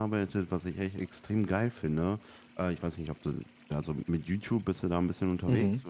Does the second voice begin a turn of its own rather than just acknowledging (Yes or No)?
Yes